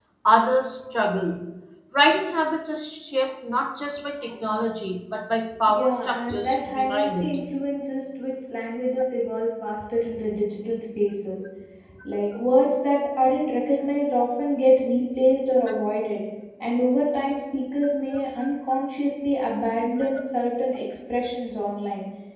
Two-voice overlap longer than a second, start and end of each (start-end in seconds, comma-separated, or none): 5.7-7.4